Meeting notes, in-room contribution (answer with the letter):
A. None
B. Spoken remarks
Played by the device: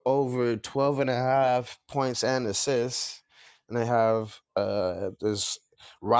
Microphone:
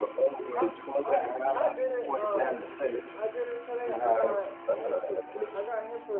B